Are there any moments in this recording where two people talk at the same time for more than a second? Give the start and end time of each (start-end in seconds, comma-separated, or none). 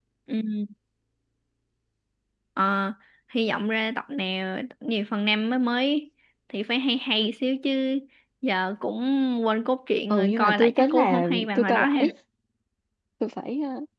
10.1-12.1